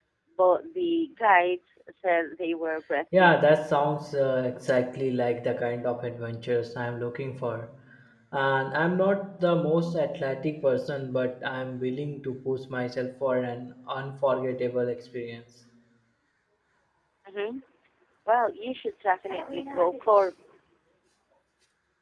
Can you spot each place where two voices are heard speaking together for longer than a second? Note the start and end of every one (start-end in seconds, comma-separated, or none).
none